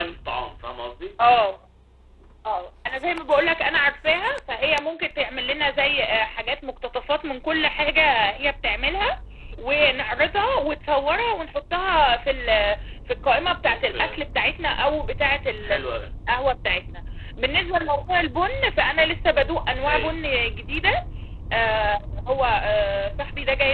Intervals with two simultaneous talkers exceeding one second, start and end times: none

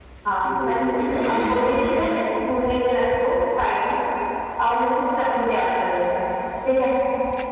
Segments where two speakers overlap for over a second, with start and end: 0.6-2.1

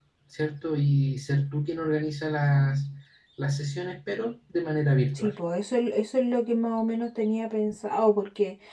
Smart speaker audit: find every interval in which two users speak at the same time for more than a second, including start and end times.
none

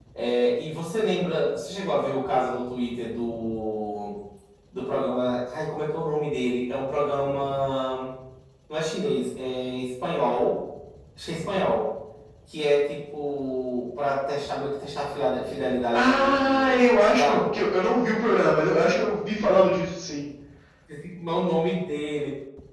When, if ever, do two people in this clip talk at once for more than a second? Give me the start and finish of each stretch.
15.9-17.6

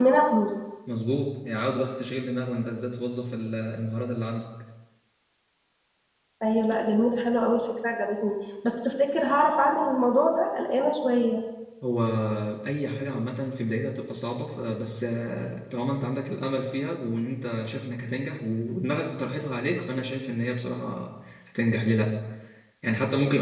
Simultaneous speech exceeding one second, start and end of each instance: none

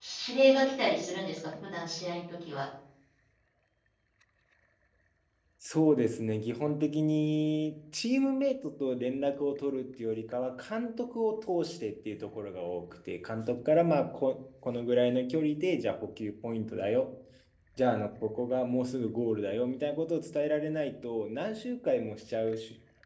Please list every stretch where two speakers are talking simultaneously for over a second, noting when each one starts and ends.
none

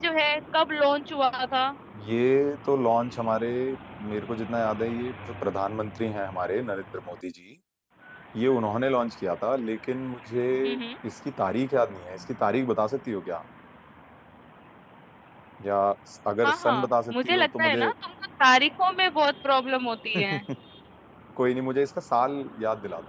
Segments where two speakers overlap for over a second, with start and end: 16.4-17.9

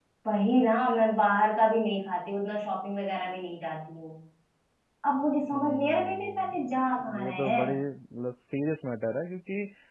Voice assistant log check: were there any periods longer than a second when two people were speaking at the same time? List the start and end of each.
5.5-7.8

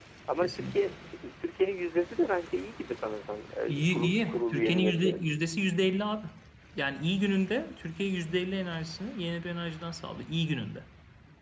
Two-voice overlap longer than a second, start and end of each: 3.7-5.2

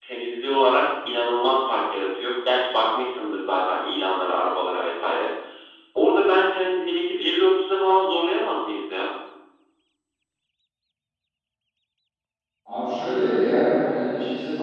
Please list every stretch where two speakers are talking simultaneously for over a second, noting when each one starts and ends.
none

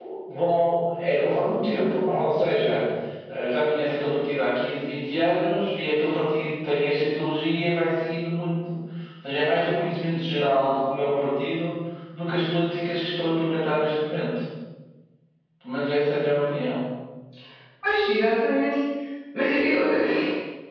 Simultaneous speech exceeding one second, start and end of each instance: none

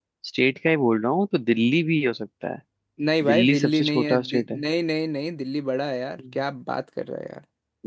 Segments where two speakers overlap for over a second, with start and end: 3.3-4.6

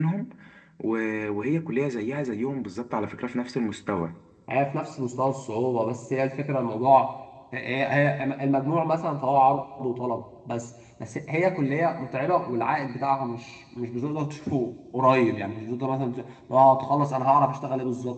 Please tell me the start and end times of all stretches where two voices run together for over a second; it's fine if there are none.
none

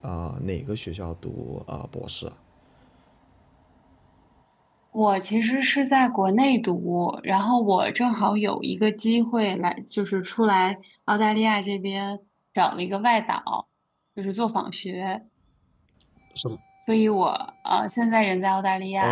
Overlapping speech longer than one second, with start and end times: none

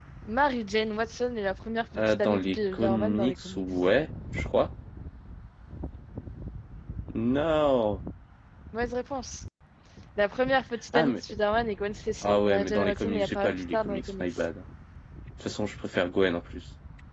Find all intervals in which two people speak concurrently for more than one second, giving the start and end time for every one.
2.0-3.6, 12.2-14.2

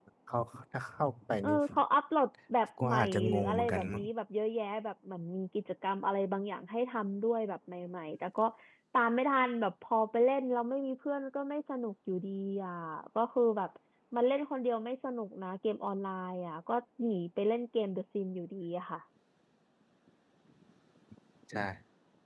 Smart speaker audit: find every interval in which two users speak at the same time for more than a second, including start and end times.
2.8-4.0

